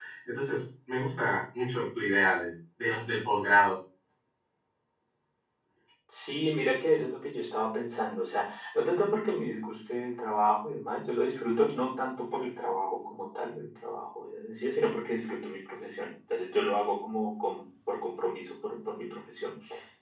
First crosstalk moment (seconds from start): none

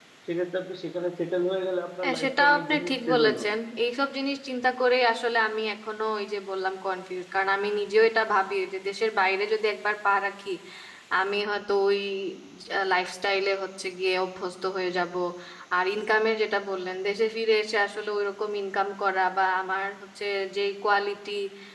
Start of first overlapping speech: 2.0 s

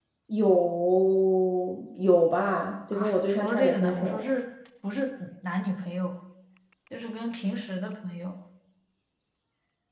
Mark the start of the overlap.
2.9 s

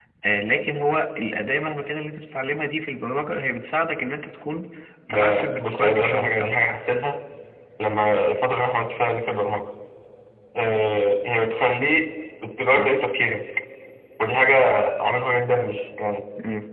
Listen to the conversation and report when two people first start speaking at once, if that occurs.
5.1 s

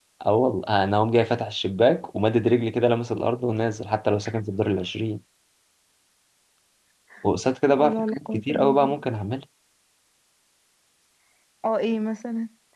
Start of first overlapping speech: 7.7 s

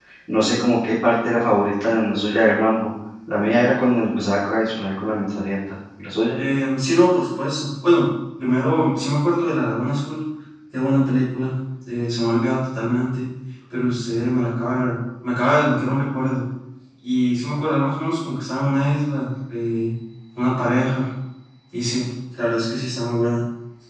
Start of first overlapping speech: none

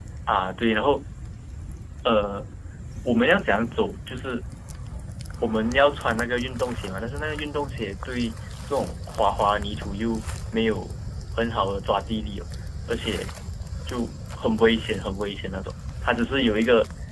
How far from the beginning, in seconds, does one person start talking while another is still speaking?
none

